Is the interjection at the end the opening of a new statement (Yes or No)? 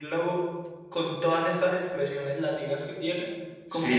Yes